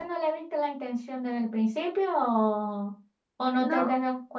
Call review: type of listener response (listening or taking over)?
listening